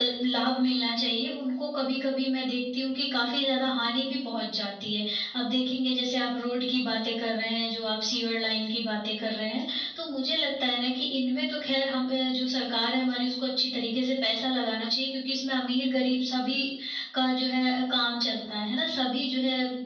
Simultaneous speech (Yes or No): No